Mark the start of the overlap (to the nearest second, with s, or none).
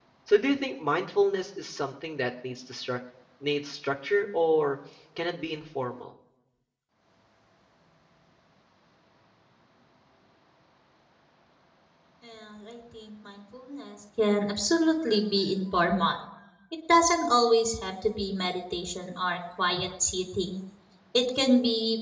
none